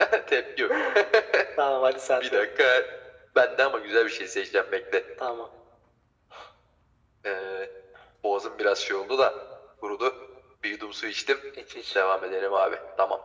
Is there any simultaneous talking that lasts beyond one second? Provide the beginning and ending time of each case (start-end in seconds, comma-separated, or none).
none